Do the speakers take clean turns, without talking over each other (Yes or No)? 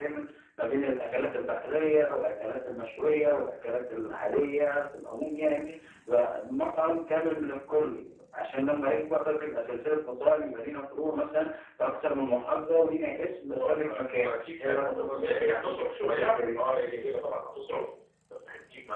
No